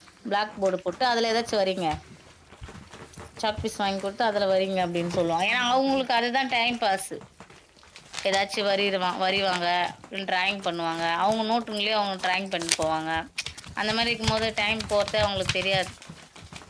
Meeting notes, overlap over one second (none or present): none